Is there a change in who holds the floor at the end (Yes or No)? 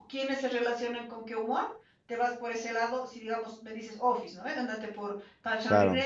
No